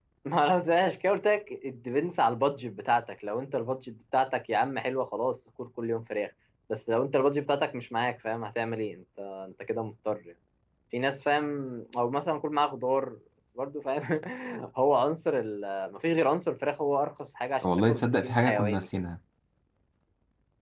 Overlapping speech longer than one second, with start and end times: 17.6-18.9

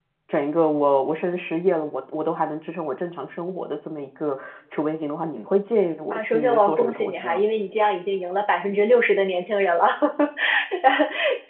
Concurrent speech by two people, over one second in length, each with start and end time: 6.1-7.4

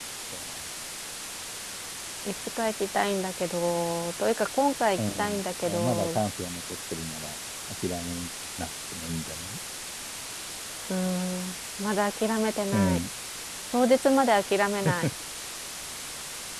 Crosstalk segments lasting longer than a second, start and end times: 5.0-6.2

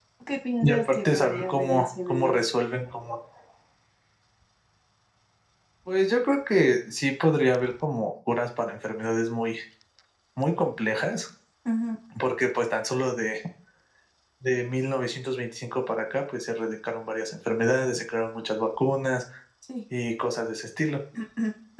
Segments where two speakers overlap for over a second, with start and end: 0.6-2.4

